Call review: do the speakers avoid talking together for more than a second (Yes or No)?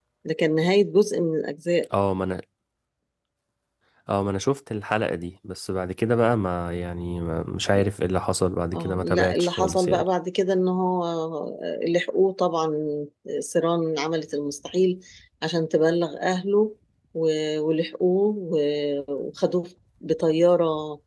No